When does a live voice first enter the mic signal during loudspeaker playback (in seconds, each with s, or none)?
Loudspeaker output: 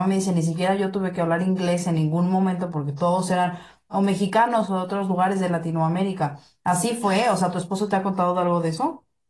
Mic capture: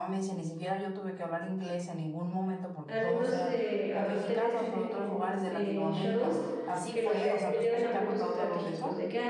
2.9 s